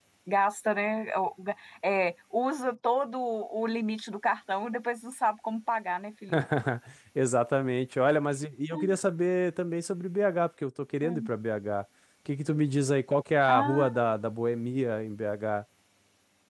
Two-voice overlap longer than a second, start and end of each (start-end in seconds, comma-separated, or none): none